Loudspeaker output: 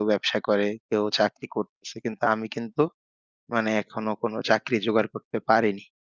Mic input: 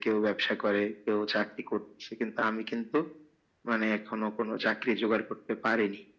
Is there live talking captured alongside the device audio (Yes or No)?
No